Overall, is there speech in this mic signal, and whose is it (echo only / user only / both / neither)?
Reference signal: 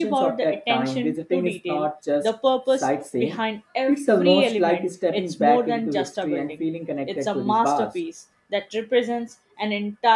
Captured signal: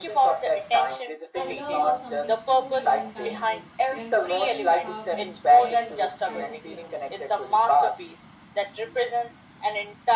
both